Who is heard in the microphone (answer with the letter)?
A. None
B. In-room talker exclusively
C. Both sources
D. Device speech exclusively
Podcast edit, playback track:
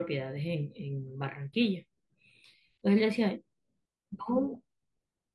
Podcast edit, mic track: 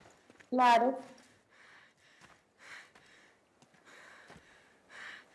B